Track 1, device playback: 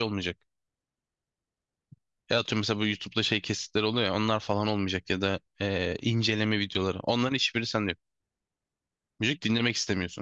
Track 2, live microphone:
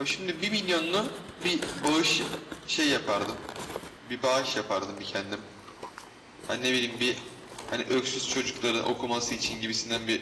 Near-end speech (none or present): present